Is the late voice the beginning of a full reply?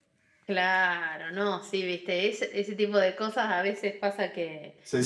No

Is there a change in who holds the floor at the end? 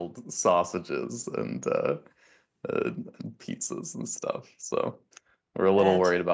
No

